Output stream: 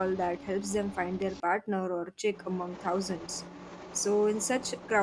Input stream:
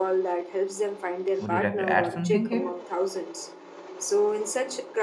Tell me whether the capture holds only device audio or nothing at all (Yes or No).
No